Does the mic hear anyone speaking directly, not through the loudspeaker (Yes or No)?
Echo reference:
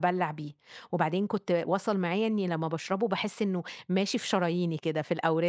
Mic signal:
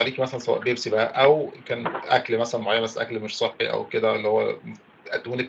Yes